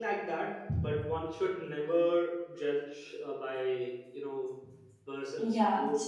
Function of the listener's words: taking over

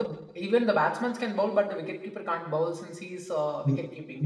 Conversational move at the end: taking over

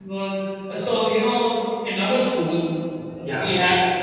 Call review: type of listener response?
listening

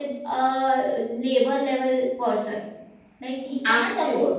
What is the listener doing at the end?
listening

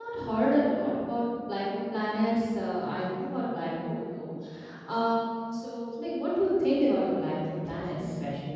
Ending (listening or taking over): taking over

